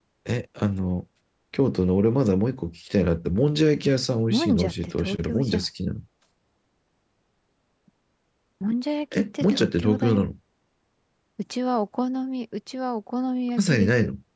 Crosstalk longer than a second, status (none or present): present